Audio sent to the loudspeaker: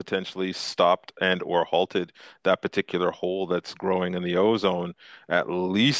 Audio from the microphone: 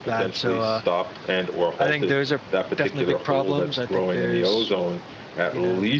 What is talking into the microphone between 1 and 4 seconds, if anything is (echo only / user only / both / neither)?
both